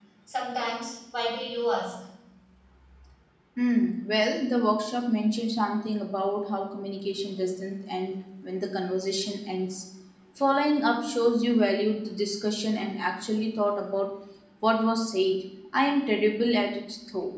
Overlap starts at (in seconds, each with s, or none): none